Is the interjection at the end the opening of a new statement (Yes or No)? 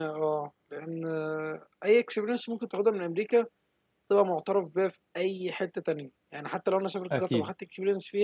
No